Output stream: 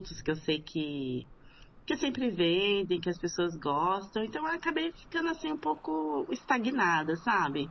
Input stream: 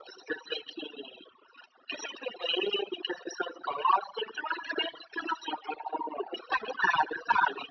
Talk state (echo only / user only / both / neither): echo only